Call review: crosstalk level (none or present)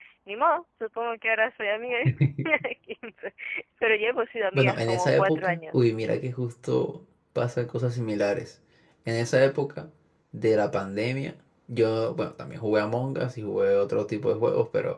present